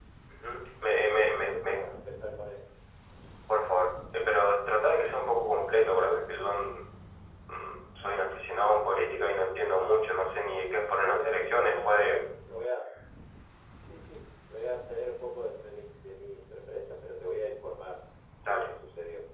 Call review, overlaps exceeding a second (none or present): present